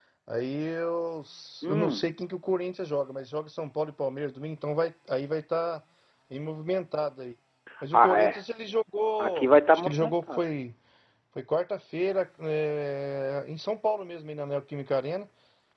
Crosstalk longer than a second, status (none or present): present